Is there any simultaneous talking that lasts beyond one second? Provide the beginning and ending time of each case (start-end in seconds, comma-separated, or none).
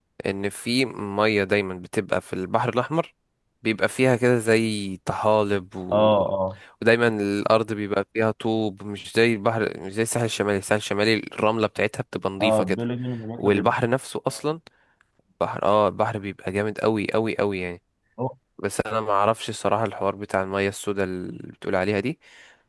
none